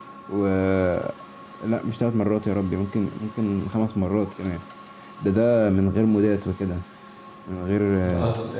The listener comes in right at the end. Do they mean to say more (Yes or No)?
Yes